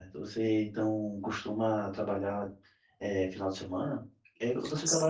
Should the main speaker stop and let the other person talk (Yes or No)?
No